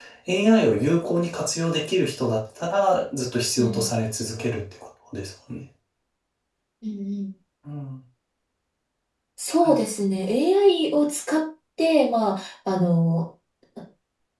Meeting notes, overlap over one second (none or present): none